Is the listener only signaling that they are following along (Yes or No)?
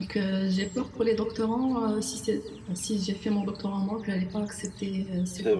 No